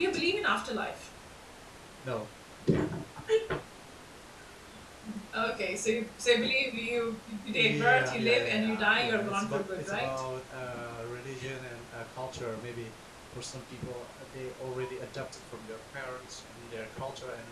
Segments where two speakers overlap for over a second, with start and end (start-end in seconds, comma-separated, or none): 7.5-10.2